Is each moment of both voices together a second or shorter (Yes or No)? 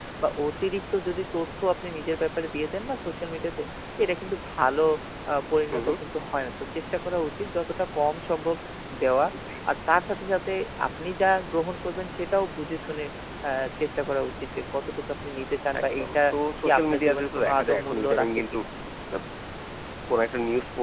No